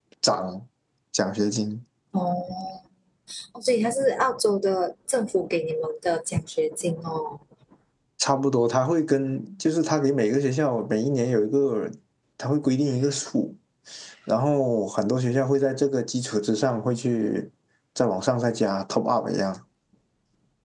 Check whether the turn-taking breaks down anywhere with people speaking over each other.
No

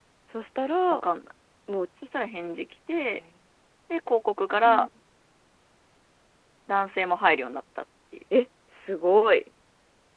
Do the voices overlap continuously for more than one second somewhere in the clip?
No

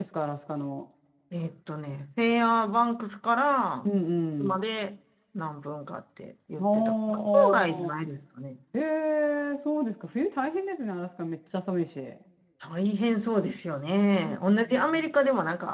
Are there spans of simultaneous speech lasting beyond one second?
Yes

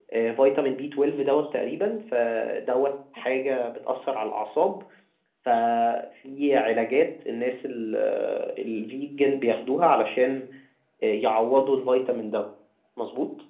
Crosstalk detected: No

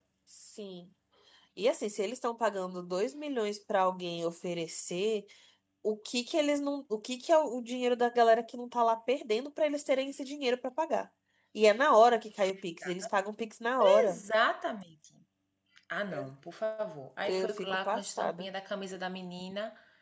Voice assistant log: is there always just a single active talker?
No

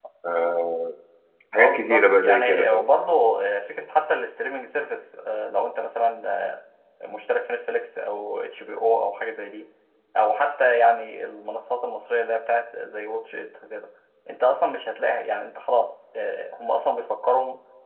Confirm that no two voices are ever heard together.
No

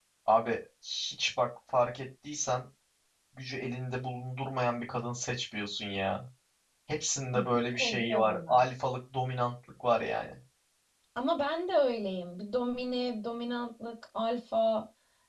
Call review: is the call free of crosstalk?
No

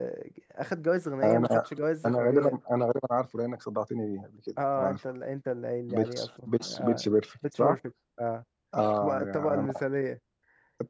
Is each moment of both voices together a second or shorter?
No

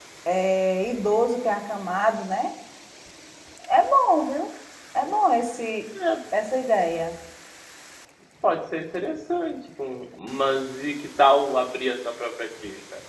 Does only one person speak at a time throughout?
Yes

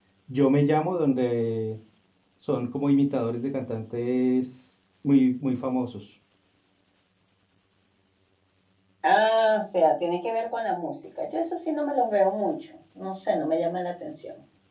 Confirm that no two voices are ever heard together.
Yes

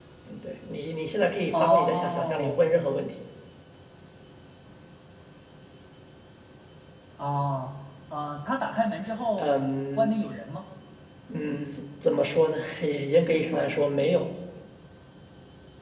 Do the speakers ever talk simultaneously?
Yes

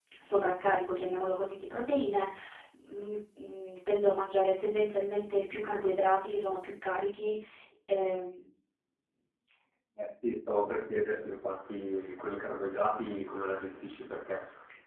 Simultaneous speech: No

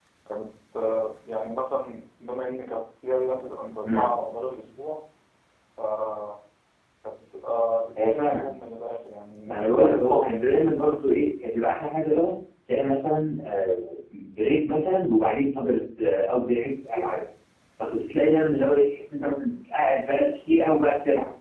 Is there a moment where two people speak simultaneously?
Yes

